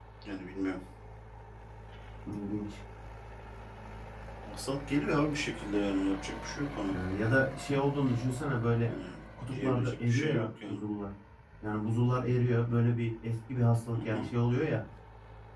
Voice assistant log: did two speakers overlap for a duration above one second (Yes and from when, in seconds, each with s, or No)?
Yes, from 9.5 s